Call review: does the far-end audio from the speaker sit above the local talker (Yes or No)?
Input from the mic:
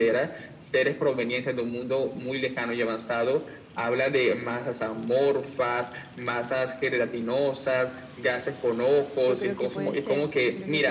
Yes